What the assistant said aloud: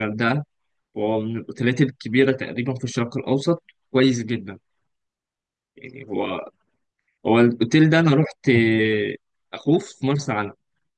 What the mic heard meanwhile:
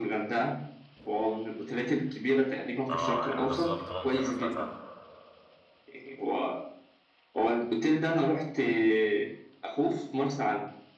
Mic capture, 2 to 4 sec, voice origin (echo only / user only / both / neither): both